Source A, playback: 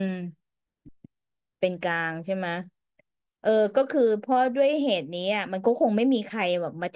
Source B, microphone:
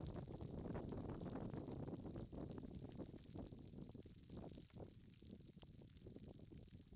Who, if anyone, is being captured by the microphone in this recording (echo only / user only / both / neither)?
neither